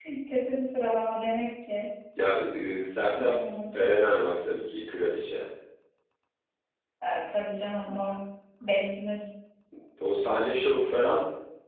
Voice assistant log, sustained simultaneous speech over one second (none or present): none